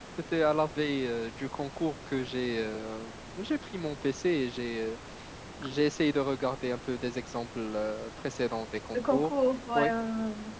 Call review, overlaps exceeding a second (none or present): none